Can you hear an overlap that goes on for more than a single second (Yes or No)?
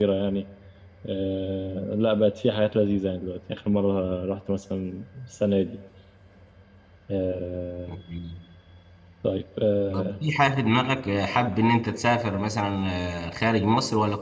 No